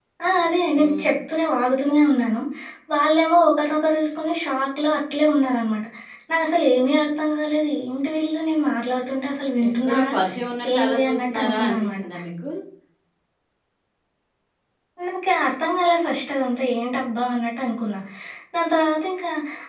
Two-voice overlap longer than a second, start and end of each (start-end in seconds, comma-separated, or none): 10.7-12.0